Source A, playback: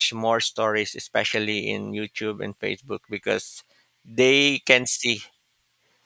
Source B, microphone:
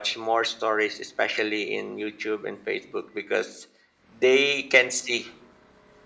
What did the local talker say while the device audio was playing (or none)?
none